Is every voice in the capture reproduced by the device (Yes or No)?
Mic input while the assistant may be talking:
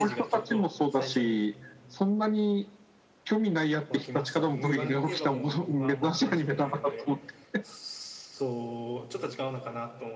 No